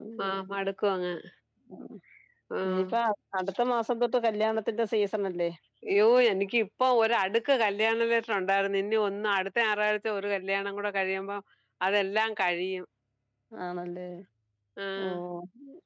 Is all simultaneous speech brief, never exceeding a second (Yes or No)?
Yes